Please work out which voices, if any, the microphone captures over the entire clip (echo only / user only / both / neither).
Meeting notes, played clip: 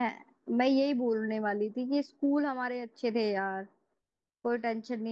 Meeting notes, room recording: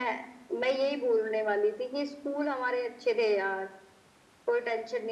echo only